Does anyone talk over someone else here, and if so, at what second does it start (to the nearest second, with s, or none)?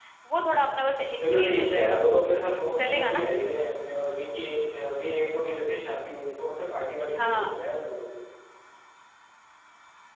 1 s